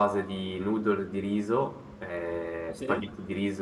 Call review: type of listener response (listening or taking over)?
listening